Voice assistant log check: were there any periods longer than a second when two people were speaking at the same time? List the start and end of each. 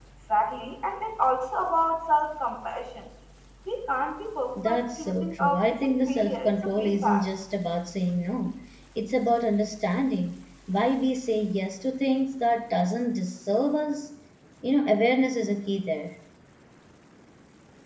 4.7-7.2

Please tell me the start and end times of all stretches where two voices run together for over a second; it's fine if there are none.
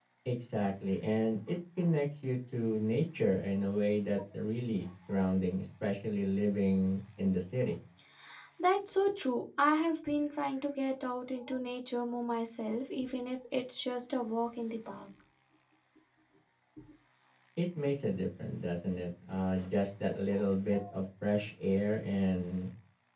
none

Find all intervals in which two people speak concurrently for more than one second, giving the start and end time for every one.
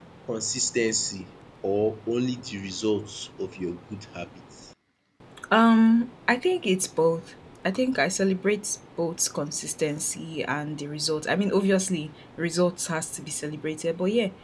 none

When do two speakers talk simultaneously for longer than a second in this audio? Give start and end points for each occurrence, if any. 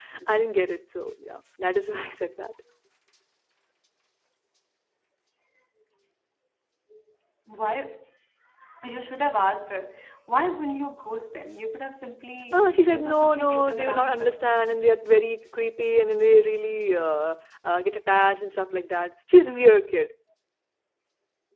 12.5-14.4

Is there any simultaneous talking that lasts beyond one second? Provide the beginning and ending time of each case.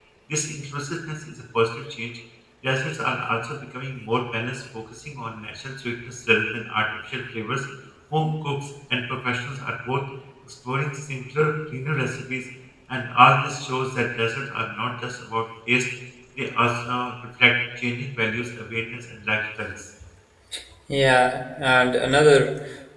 none

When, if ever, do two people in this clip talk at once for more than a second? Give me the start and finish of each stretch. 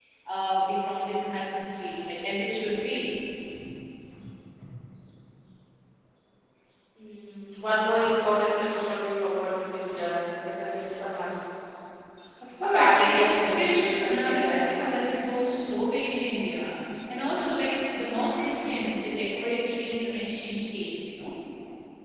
12.7-14.9

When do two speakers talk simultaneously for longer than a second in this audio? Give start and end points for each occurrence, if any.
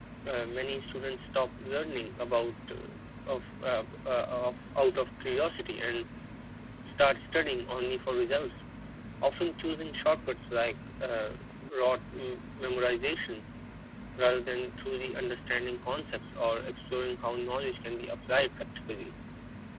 none

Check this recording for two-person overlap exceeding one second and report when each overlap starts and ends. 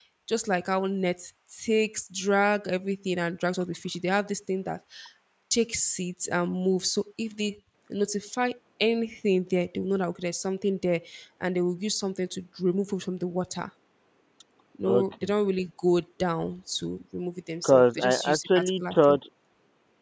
17.6-19.2

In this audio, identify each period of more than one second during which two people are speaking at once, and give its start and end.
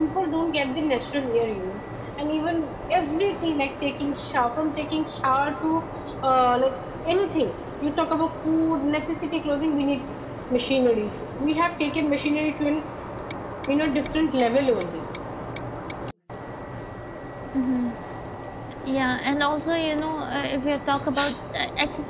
none

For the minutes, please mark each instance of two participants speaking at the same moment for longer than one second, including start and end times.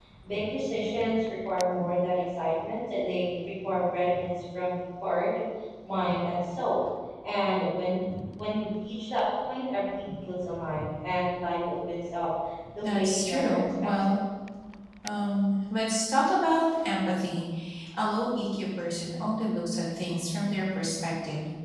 12.8-14.1

